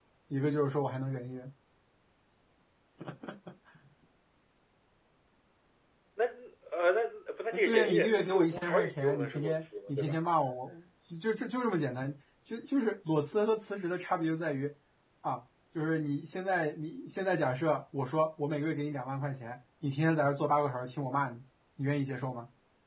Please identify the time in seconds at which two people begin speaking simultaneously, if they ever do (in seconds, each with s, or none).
7.5 s